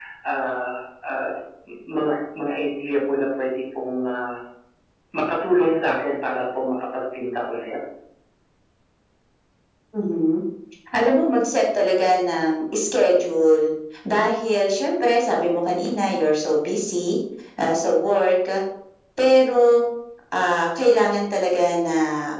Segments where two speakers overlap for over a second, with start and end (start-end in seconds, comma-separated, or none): none